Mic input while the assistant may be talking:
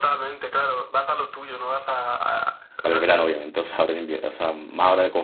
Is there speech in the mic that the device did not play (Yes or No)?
Yes